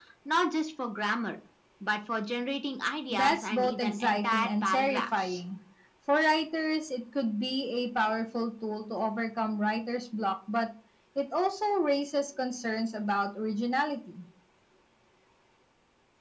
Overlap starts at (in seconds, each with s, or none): 3.1 s